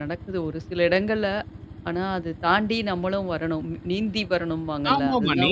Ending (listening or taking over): taking over